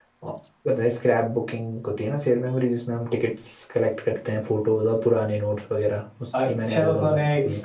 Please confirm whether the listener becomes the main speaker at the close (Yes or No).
Yes